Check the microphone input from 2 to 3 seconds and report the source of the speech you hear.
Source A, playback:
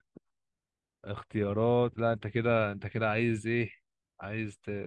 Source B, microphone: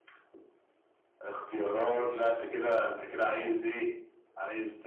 both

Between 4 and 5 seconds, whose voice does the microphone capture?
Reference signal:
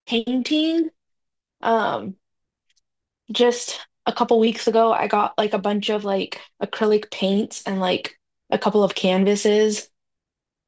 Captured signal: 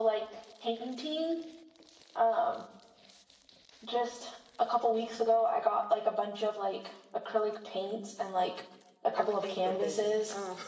echo only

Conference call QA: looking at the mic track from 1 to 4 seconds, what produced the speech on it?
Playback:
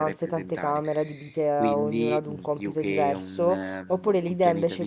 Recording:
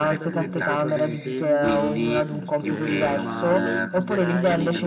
both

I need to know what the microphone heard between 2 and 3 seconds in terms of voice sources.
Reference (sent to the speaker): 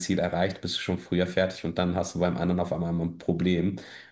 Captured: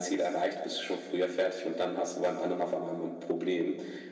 echo only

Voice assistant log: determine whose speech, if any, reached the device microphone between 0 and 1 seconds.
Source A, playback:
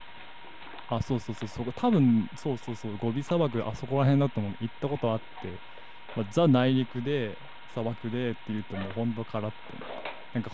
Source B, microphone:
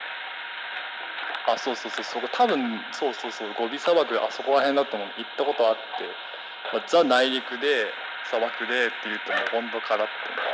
neither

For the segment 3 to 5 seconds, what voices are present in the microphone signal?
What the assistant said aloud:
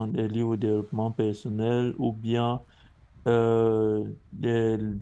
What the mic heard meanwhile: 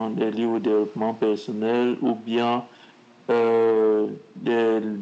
echo only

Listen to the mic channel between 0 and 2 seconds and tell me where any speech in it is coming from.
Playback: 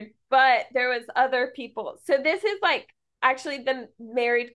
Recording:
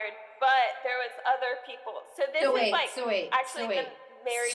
echo only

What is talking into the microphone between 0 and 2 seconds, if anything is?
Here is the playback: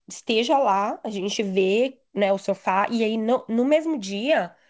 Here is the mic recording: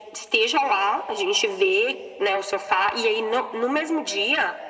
echo only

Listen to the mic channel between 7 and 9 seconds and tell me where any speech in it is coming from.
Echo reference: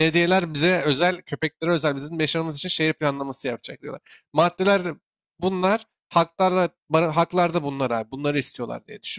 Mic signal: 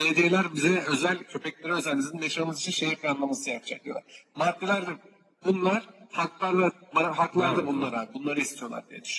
both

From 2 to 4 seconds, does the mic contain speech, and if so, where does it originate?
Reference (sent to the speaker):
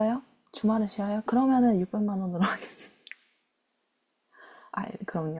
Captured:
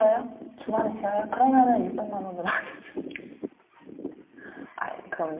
echo only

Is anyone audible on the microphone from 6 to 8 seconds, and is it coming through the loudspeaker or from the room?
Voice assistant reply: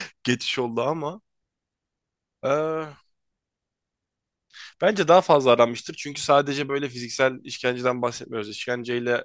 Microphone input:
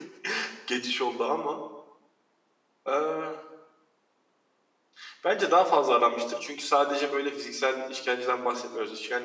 echo only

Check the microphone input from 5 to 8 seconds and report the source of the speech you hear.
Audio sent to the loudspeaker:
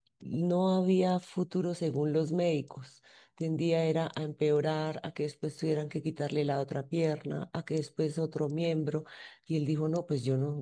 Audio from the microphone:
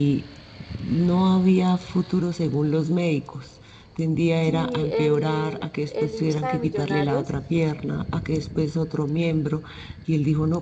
both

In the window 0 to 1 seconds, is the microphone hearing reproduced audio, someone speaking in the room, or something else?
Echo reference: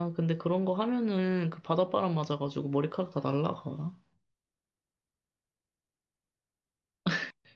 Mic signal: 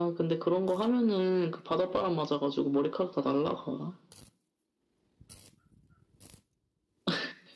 echo only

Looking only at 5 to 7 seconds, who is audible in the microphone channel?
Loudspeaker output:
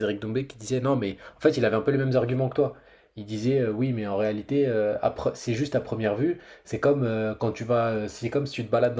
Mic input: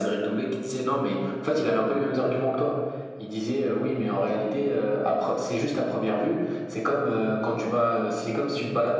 echo only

